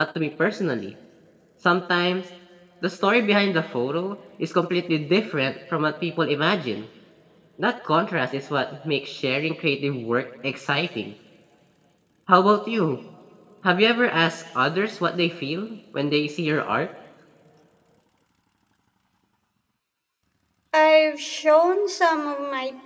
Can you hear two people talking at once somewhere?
No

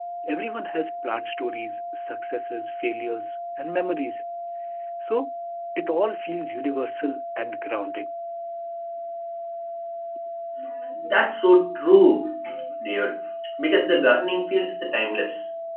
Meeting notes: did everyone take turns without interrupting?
Yes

